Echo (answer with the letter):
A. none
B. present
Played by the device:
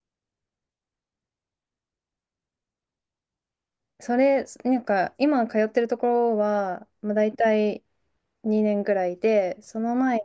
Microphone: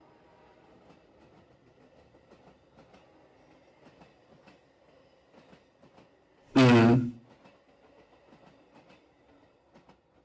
A